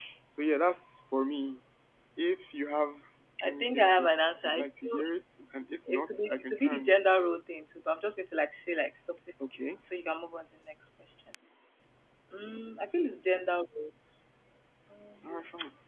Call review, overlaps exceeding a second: present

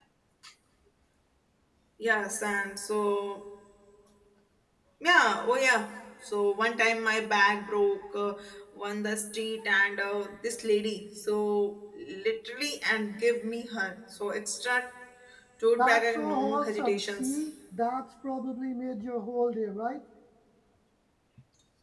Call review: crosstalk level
present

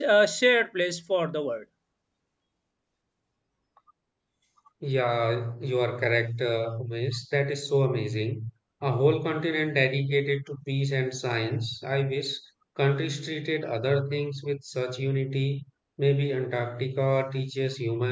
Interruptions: none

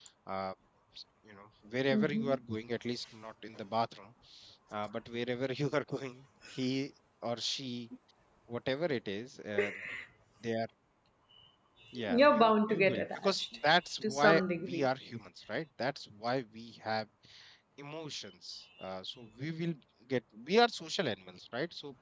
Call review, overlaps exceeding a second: present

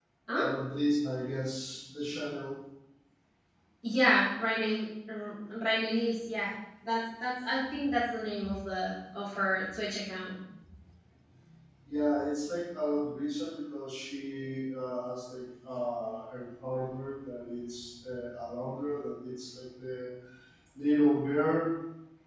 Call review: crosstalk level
none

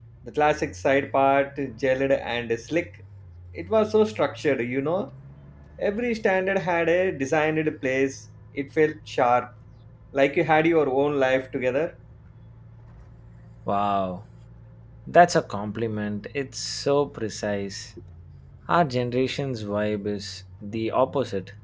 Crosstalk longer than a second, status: none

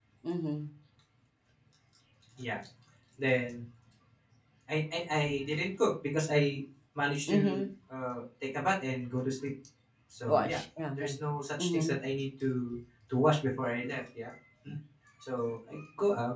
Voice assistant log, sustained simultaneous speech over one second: none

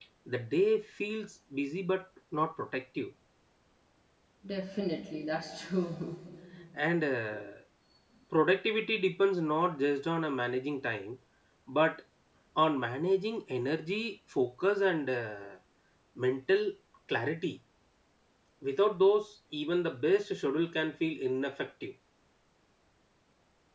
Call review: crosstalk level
none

